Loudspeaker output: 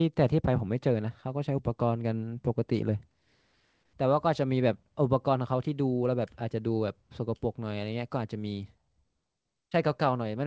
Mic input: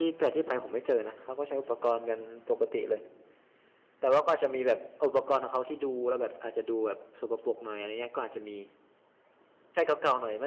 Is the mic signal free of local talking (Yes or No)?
Yes